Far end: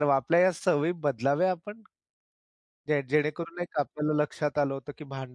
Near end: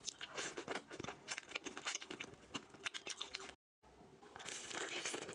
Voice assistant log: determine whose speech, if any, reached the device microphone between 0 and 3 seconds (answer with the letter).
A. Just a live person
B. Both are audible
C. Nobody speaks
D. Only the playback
C